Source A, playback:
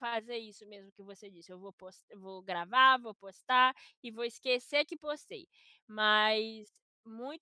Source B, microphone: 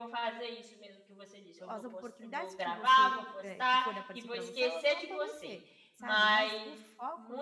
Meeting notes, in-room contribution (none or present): present